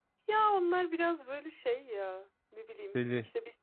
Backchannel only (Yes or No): Yes